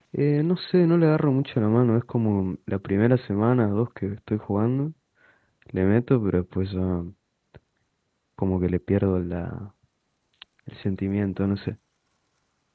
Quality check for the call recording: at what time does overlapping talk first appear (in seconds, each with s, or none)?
none